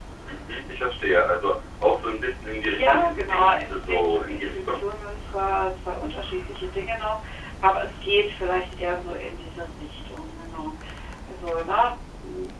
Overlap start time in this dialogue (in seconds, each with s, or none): 2.7 s